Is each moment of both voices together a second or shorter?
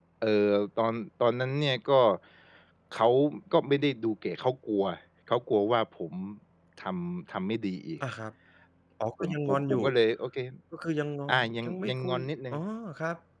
No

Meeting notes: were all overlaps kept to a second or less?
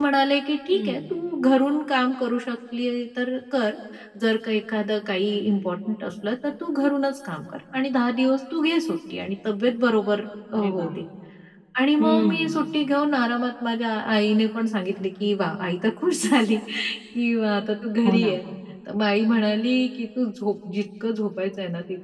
Yes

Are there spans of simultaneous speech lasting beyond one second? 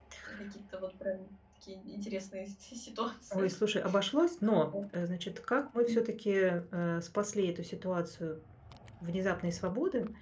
No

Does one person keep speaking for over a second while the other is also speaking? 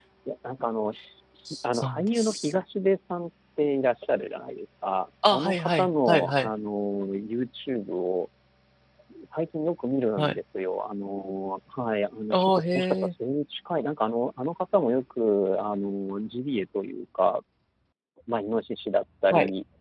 Yes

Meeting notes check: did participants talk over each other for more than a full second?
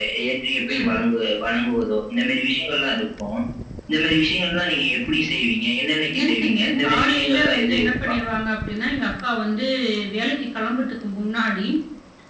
Yes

